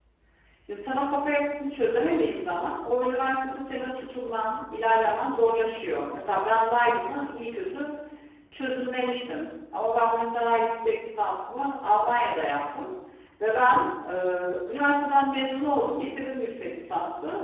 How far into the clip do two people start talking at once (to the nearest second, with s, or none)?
none